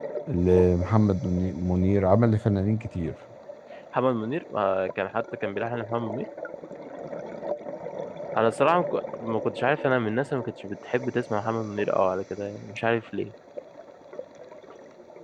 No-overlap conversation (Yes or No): Yes